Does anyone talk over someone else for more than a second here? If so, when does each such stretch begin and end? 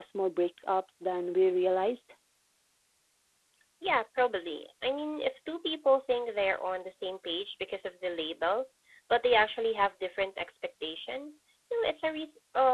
none

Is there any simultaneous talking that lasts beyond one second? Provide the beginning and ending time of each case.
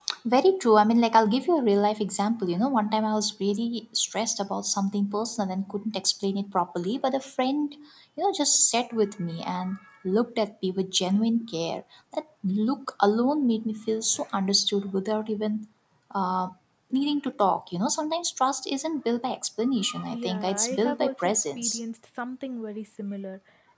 20.1-21.8

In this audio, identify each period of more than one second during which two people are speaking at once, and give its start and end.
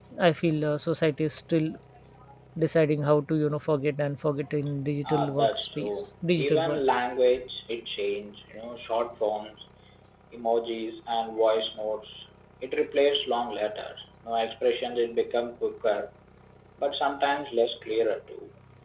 5.0-6.8

